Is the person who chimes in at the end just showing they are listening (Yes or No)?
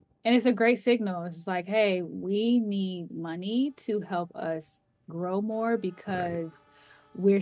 Yes